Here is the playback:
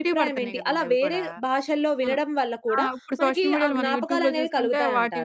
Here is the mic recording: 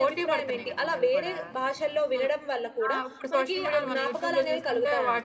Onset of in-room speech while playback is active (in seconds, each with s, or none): none